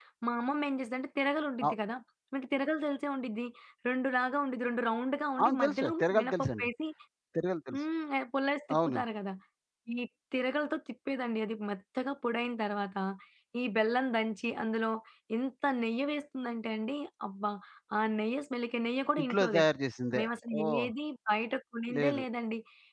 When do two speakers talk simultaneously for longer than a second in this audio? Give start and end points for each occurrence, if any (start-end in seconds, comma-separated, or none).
5.4-6.7